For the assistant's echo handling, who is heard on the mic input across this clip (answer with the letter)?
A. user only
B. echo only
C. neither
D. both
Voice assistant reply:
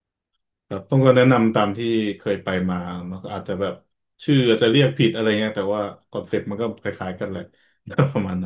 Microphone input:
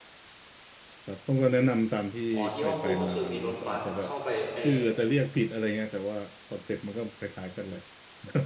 D